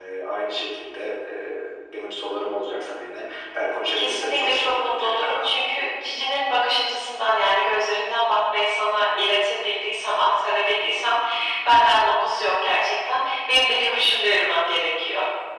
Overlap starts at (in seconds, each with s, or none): 4.0 s